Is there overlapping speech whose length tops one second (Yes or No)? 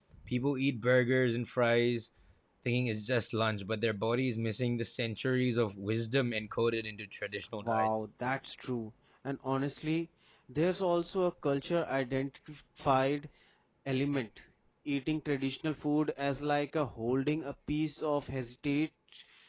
No